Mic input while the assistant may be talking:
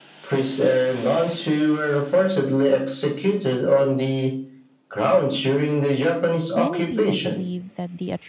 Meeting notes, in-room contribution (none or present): present